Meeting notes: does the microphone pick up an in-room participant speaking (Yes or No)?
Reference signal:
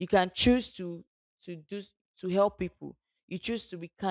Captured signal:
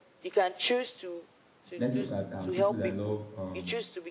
Yes